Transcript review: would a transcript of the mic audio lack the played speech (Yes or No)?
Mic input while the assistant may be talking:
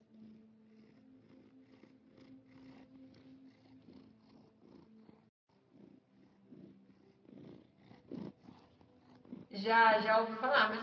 Yes